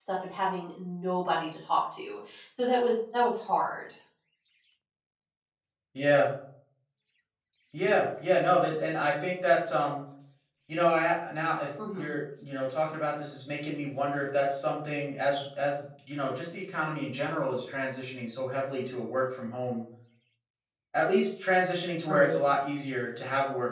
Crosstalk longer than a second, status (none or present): none